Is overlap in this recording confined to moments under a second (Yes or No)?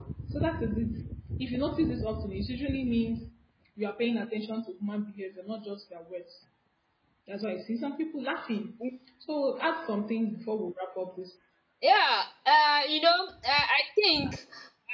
Yes